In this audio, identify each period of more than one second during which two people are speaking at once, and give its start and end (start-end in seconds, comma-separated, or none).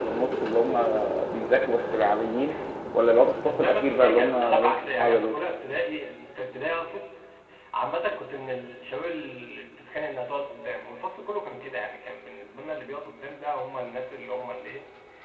3.4-5.3